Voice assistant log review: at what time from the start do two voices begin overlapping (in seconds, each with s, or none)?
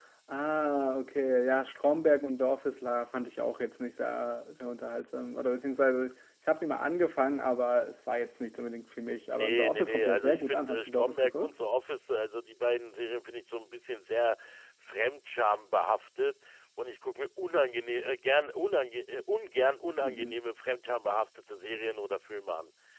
9.3 s